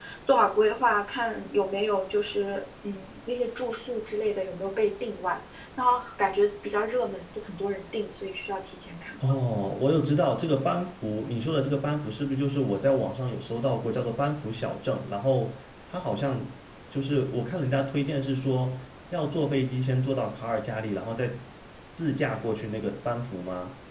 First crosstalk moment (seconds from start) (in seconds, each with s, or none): none